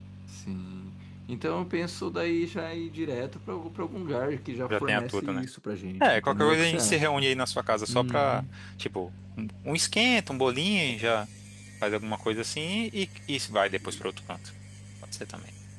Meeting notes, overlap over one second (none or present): present